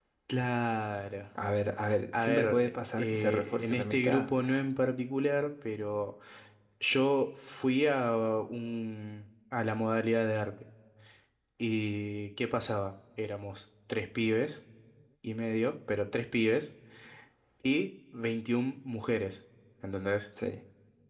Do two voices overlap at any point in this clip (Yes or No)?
Yes